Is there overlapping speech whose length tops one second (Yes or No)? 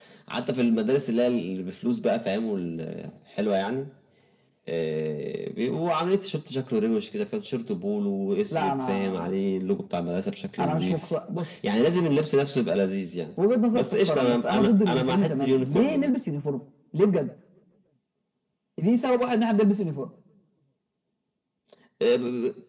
Yes